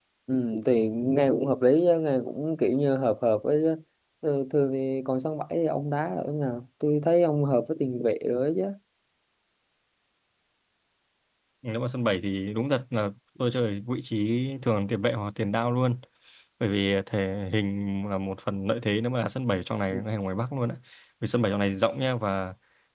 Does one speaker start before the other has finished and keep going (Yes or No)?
No